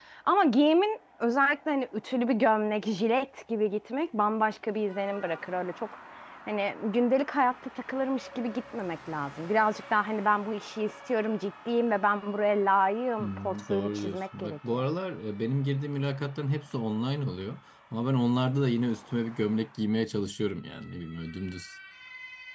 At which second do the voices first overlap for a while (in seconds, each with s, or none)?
13.2 s